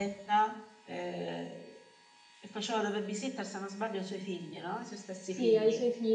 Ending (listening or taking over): taking over